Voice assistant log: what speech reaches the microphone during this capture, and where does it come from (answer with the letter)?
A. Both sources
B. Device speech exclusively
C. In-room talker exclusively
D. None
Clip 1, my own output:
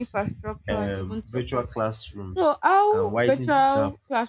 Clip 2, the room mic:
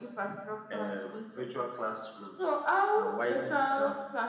B